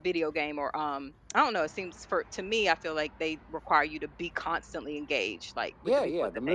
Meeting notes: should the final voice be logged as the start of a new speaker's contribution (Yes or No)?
Yes